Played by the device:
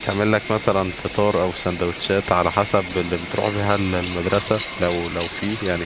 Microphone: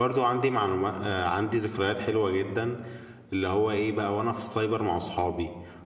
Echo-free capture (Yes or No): Yes